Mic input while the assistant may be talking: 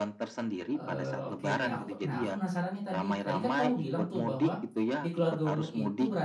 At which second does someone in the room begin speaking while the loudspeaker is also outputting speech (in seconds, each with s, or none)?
0.7 s